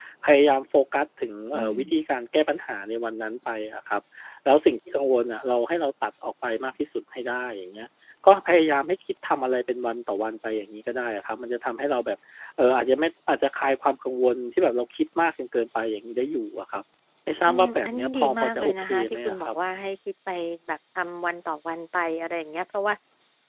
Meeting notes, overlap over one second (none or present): present